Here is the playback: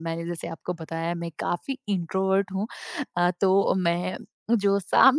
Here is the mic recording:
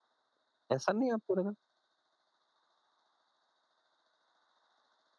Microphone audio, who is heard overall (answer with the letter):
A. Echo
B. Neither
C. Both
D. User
D